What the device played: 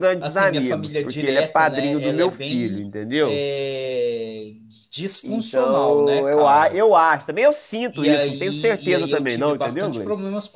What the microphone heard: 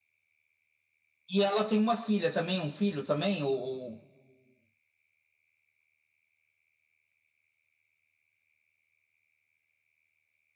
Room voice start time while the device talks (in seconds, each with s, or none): 1.3 s